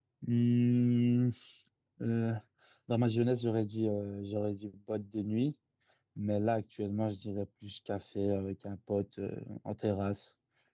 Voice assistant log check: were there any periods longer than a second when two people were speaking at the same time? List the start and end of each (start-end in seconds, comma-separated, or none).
none